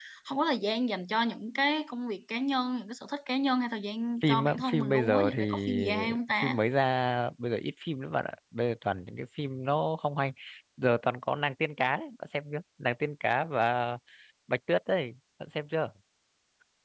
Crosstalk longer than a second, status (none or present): present